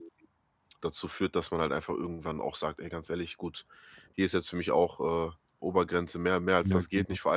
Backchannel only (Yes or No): Yes